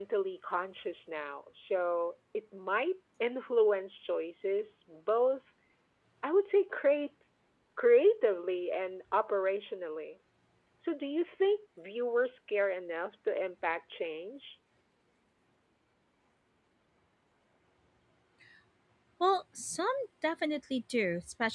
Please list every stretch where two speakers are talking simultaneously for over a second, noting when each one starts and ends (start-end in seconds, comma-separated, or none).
none